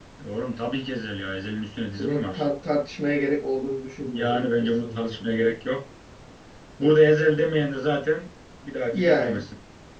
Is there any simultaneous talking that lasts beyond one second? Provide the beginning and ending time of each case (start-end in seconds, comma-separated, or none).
4.1-5.6